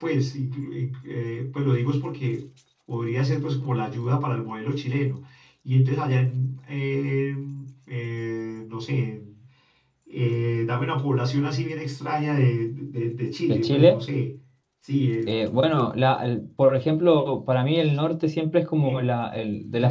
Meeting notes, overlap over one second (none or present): none